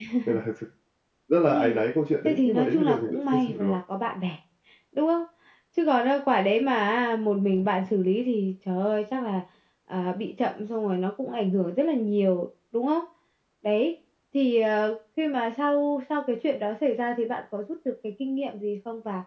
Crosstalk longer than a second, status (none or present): present